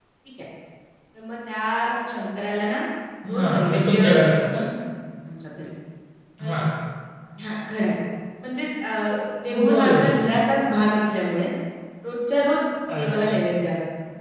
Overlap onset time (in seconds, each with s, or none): 3.3 s